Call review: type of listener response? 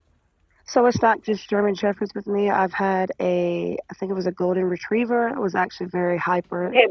taking over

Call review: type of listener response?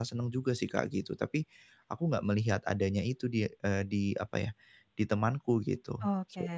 taking over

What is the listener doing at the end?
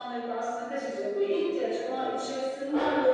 listening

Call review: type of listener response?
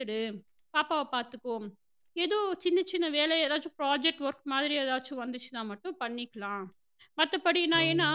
listening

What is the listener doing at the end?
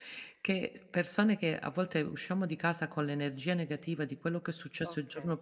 listening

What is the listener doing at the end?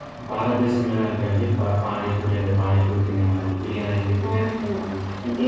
taking over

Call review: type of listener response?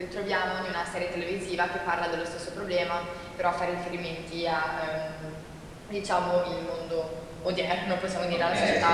taking over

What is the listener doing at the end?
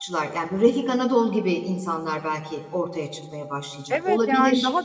taking over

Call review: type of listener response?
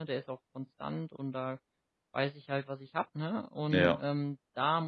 listening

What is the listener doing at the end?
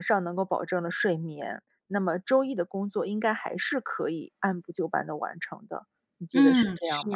taking over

